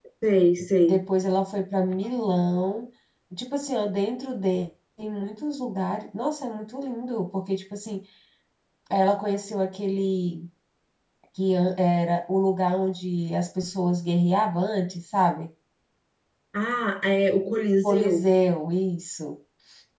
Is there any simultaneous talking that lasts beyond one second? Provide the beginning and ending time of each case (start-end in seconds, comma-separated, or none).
none